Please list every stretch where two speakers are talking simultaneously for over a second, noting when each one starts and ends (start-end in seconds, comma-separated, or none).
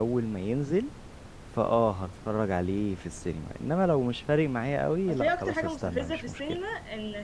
5.1-6.6